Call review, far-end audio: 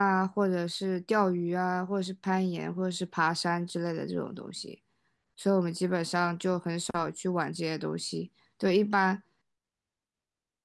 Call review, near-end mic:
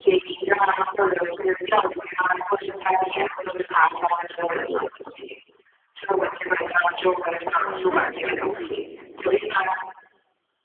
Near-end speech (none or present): present